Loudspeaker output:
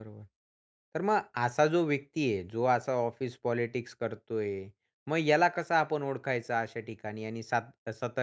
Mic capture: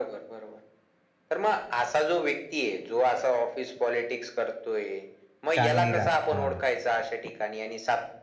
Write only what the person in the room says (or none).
चांदनी रात, हां.